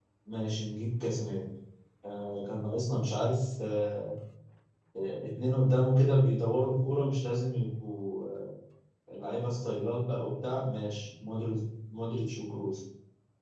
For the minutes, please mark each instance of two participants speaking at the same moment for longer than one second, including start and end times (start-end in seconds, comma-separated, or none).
none